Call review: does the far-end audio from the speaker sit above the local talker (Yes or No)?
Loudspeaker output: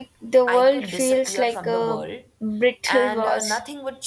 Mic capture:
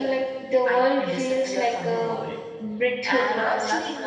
Yes